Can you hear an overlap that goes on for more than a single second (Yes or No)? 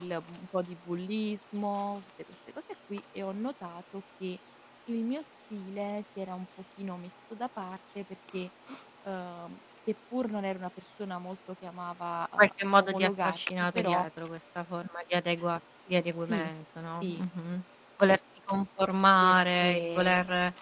Yes